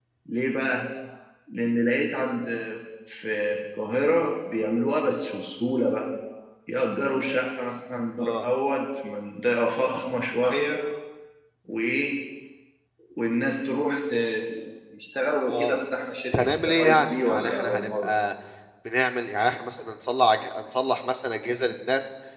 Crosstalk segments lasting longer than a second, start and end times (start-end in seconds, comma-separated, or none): 16.3-18.1